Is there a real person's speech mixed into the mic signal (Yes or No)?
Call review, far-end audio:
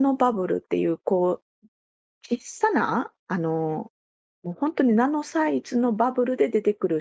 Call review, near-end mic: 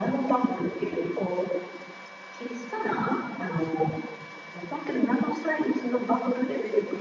No